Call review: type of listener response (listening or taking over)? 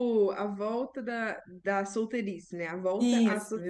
taking over